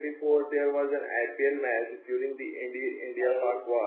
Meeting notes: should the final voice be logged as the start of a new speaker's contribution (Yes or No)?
Yes